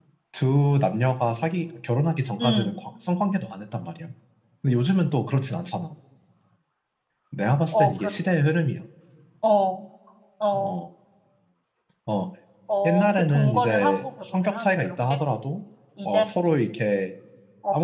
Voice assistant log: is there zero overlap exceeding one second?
No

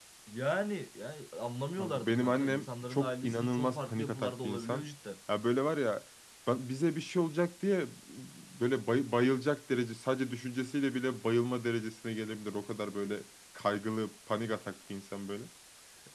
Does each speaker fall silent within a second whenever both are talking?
No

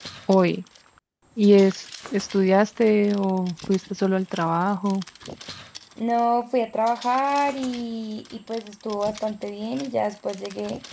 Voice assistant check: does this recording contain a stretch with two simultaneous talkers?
No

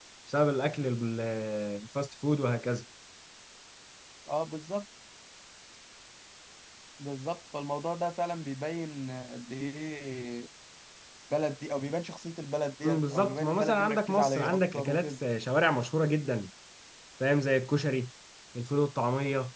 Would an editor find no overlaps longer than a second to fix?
No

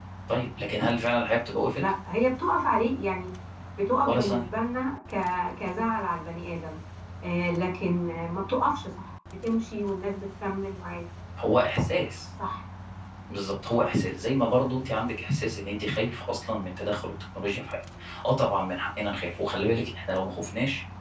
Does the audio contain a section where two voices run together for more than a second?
No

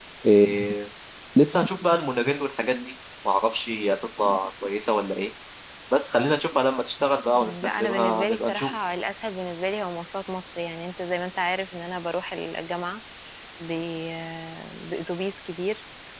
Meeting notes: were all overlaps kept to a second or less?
No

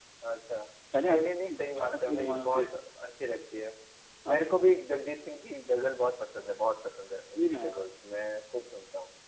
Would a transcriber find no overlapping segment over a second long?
No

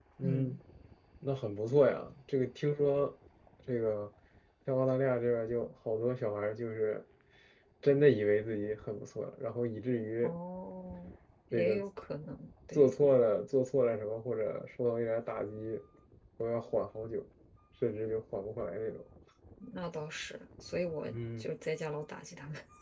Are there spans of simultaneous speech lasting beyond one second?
No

